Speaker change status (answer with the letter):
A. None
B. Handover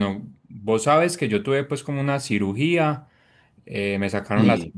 A